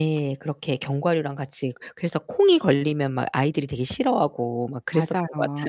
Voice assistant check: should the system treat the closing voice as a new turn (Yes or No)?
Yes